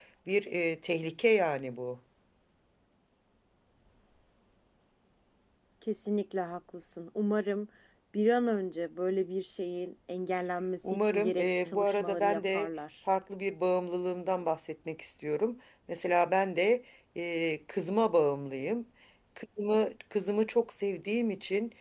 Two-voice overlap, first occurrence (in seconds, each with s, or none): 10.8 s